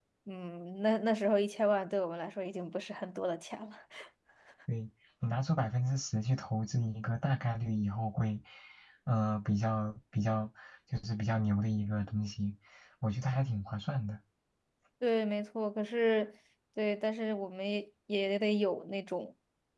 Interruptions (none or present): none